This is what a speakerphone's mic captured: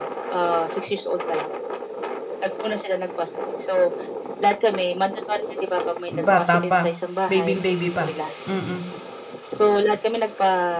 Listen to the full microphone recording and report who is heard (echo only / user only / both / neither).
both